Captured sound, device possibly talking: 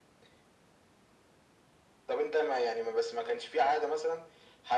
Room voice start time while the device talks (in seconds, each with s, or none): none